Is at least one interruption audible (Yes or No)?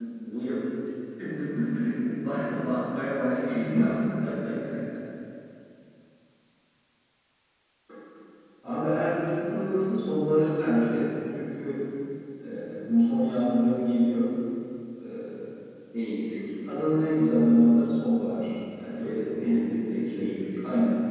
Yes